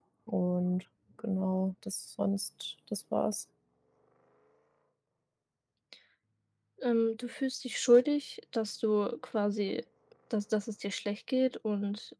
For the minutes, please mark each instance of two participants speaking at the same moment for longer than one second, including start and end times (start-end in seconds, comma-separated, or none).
none